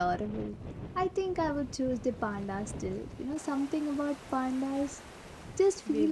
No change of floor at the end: No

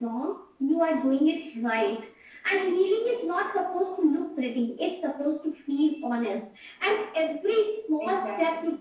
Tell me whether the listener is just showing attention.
Yes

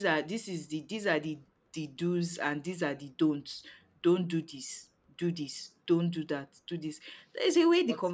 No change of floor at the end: Yes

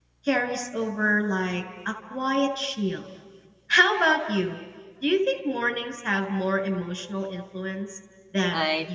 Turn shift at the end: Yes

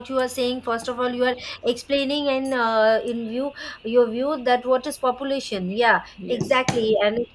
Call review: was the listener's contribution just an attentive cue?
Yes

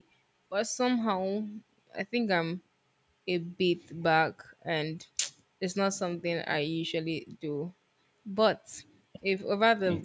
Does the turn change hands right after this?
No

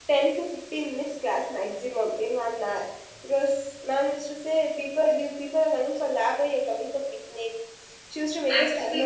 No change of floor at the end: No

